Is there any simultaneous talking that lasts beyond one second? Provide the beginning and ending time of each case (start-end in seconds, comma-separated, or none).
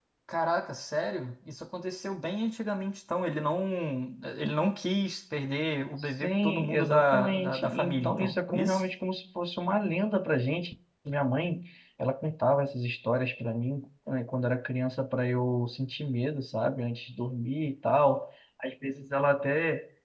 6.2-8.8